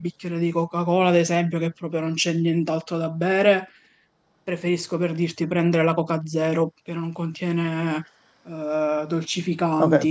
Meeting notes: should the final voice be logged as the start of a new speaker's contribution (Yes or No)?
Yes